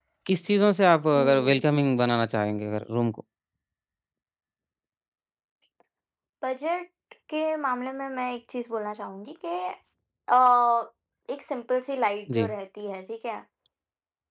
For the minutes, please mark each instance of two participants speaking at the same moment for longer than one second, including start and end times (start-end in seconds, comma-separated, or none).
none